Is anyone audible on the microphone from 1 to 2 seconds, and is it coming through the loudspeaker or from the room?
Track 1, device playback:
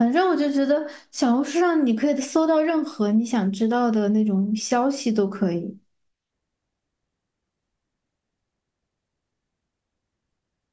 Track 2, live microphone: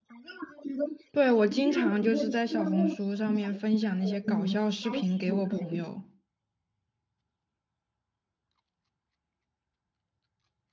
both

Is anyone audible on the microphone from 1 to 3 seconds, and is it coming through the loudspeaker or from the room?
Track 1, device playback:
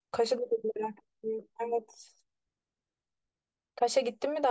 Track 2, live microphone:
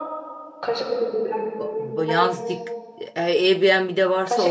both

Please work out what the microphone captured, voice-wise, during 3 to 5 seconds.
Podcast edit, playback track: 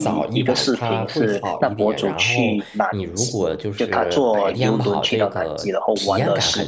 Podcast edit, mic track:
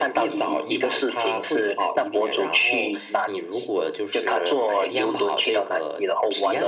echo only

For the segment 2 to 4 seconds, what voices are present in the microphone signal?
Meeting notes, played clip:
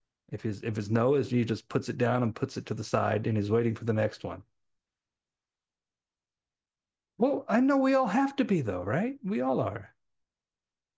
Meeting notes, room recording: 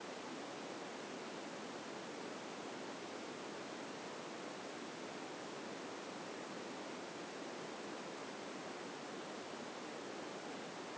neither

